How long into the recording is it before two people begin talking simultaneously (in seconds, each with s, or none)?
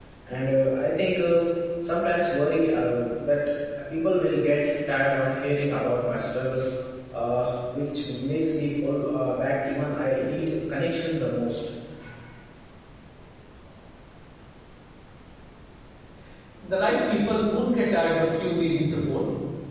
none